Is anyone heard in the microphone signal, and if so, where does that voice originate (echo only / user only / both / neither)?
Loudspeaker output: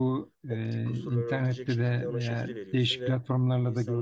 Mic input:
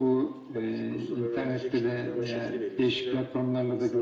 echo only